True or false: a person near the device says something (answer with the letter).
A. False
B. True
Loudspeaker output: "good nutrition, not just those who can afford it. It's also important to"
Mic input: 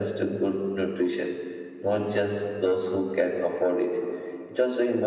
A